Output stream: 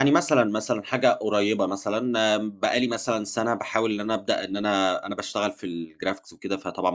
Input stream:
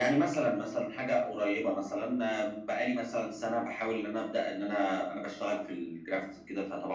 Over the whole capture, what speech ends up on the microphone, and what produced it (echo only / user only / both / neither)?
echo only